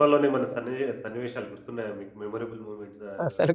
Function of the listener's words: taking over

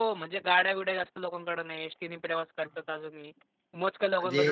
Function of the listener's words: listening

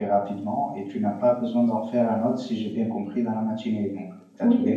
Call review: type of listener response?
taking over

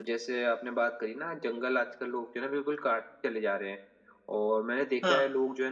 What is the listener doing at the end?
listening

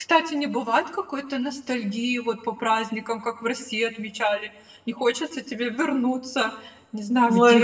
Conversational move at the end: taking over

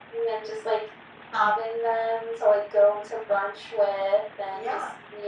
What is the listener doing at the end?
listening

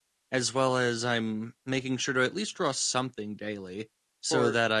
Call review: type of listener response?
listening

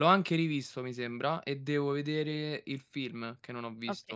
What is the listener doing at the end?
taking over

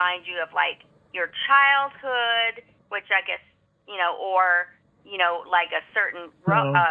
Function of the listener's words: listening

